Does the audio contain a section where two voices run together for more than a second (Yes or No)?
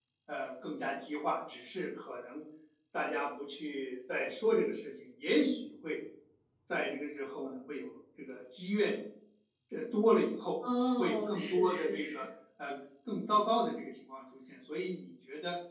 Yes